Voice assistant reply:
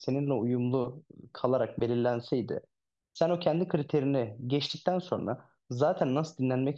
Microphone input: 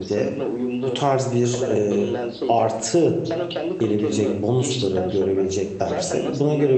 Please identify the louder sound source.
user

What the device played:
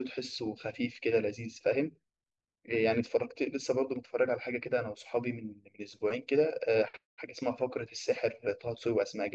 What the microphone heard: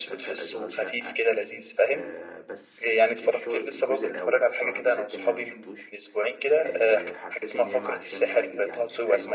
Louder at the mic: echo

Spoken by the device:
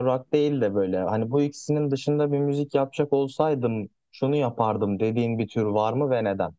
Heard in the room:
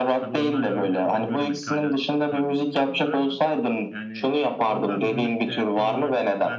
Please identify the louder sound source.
echo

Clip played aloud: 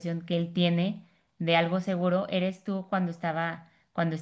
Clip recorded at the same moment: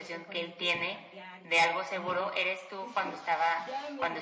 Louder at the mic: echo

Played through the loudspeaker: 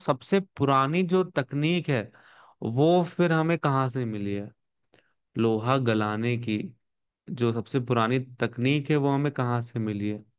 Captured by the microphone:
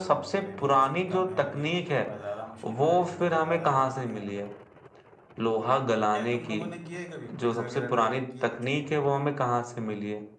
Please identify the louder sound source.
echo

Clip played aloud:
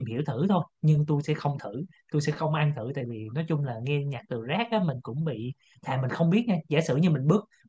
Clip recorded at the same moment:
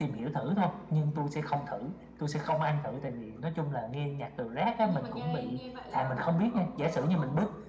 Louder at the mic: echo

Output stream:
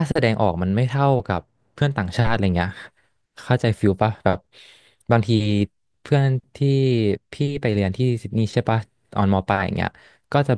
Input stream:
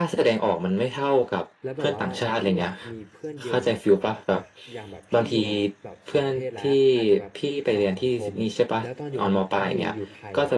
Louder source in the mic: echo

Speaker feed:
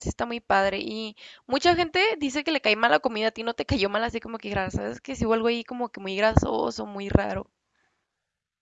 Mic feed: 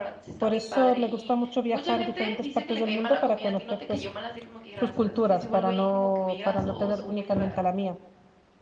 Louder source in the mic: user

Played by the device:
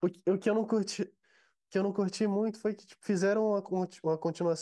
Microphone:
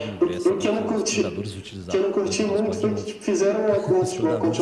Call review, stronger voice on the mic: echo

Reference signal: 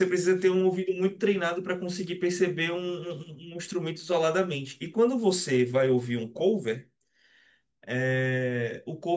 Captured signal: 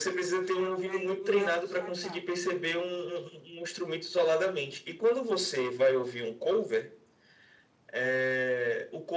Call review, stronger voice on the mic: echo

